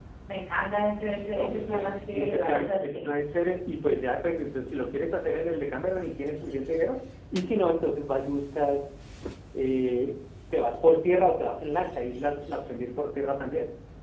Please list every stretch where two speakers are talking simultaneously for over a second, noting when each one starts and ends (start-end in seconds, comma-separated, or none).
1.1-3.1